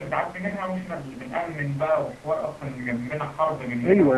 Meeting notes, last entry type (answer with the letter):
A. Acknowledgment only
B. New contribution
B